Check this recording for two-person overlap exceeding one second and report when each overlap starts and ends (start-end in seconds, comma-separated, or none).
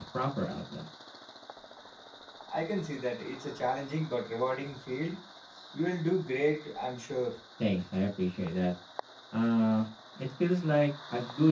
none